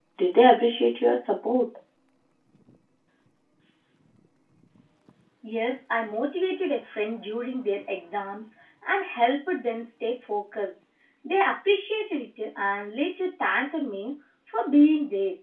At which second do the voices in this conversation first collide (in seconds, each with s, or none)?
none